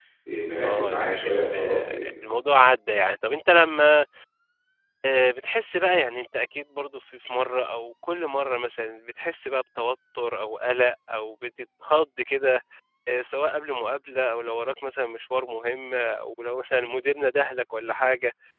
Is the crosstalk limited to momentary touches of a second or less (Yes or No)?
No